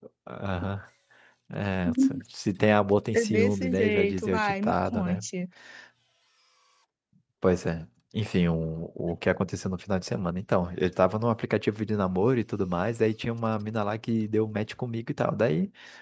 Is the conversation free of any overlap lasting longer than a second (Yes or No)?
No